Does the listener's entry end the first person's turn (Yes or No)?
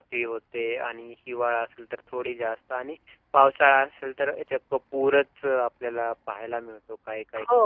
Yes